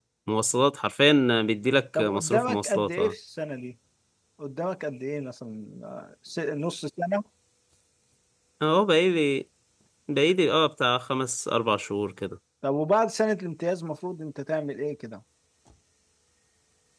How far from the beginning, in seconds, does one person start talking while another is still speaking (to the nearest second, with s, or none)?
2 s